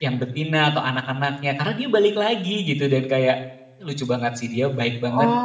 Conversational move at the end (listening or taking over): taking over